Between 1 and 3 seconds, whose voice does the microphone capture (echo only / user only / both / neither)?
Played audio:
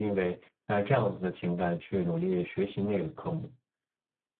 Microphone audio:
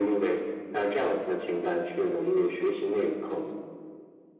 echo only